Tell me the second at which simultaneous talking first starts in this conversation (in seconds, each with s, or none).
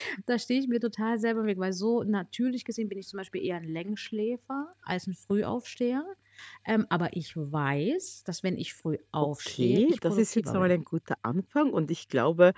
9.5 s